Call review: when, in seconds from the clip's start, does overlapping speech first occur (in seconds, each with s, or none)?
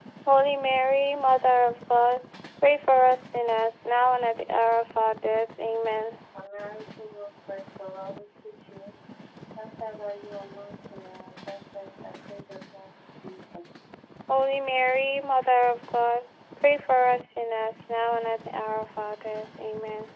none